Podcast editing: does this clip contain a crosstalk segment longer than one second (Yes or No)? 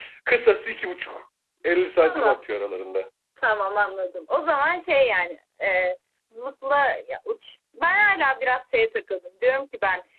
No